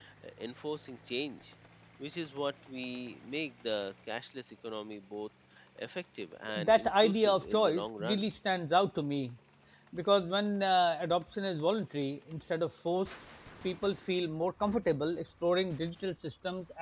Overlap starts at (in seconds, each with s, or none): 6.5 s